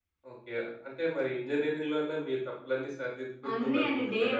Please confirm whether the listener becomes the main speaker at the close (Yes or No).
Yes